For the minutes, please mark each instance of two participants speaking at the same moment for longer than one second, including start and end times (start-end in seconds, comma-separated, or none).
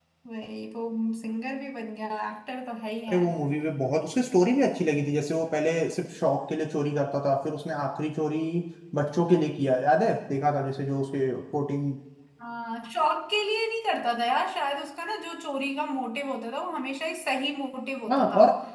none